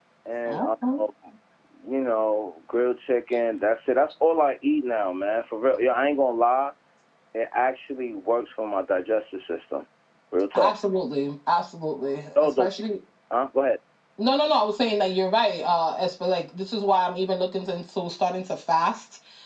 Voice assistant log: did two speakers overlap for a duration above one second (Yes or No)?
No